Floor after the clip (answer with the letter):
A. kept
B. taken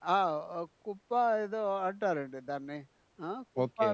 A